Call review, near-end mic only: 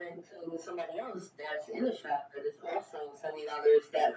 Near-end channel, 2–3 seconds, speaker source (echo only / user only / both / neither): echo only